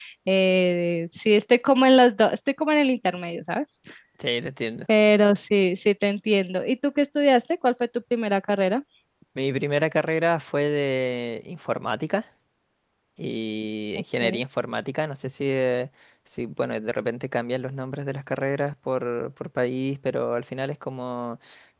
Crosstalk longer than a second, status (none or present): none